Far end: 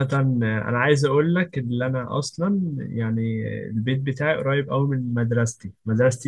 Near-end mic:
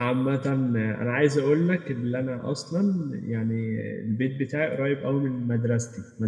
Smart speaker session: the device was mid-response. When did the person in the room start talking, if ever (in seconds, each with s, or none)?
none